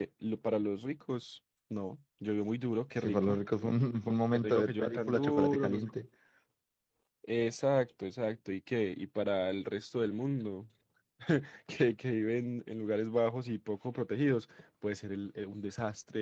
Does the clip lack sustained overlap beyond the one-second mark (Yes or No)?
No